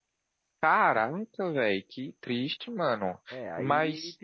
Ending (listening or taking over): taking over